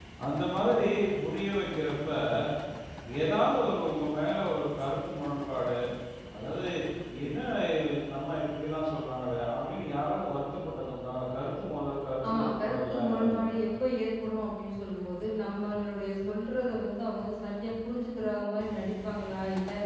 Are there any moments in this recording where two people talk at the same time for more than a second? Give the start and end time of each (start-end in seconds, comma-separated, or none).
12.3-13.6